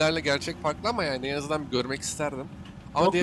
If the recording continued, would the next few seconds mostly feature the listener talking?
Yes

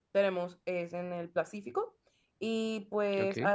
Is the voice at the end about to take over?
No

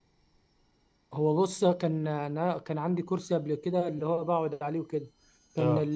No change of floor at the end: Yes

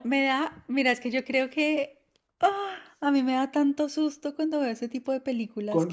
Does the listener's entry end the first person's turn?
Yes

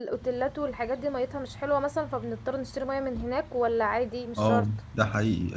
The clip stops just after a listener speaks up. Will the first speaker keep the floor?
No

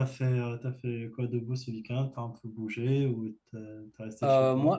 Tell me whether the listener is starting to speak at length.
Yes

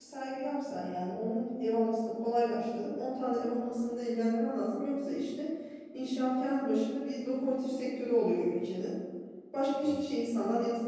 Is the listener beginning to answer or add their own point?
No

